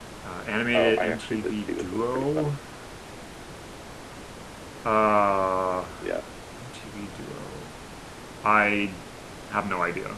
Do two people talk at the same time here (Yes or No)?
Yes